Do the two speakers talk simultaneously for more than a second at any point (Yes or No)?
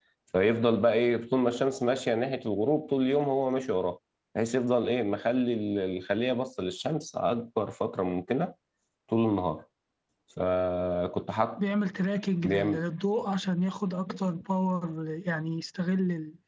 No